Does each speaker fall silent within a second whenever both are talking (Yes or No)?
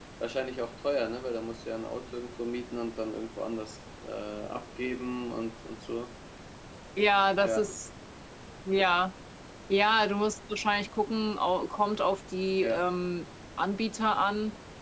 Yes